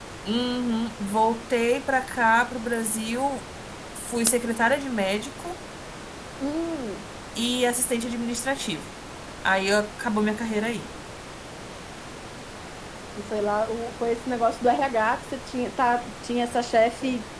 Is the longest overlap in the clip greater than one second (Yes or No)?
No